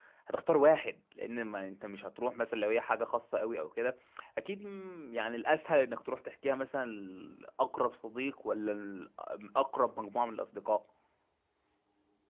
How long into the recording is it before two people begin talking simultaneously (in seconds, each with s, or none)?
none